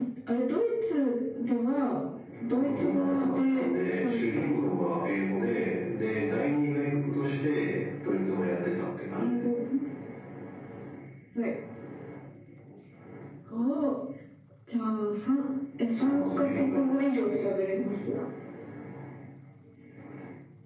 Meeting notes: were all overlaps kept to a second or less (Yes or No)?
No